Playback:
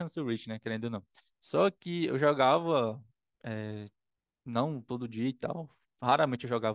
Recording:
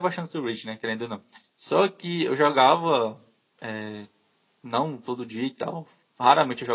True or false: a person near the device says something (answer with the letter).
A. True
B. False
B